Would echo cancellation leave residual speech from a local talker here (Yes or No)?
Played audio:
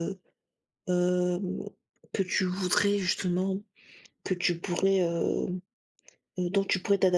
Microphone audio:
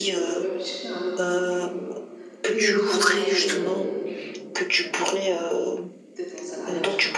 Yes